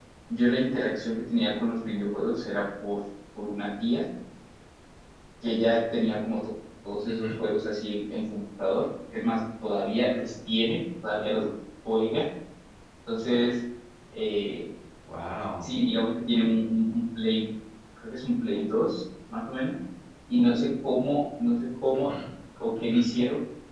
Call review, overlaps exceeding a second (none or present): none